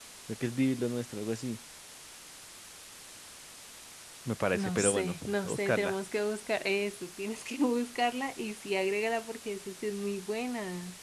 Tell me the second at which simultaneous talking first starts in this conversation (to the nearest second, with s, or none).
5 s